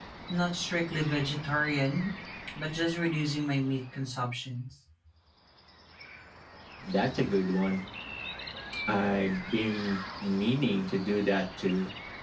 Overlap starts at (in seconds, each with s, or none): none